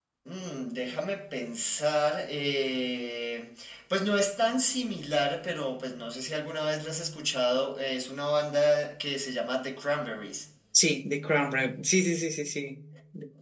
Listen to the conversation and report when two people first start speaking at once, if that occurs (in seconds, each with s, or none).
none